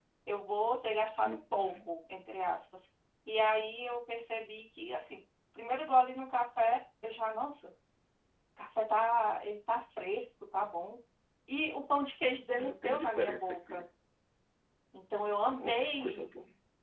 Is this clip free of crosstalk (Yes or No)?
No